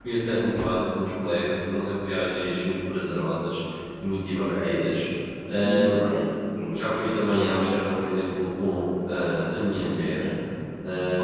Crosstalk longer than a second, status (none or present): none